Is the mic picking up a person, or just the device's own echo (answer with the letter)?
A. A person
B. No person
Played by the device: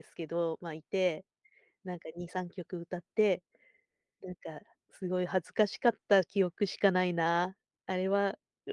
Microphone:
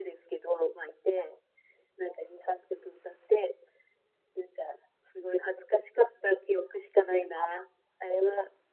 B